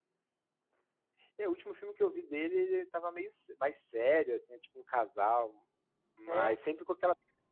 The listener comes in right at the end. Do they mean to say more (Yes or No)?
No